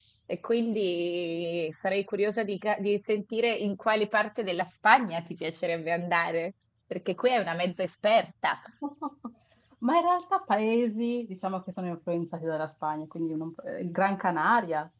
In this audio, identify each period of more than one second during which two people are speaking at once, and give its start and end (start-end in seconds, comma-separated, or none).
none